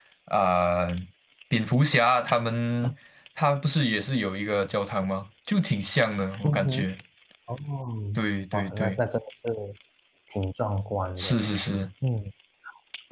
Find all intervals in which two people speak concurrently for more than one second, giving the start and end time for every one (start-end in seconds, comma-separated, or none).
none